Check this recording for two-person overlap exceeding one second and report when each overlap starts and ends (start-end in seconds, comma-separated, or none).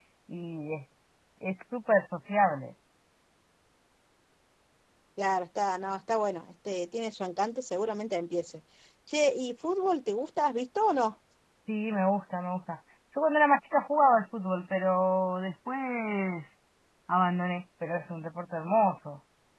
none